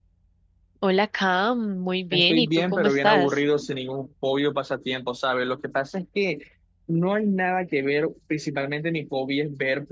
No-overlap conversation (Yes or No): No